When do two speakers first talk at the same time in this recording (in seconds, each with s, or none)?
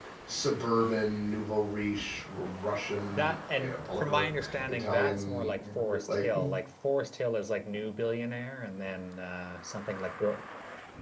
3.1 s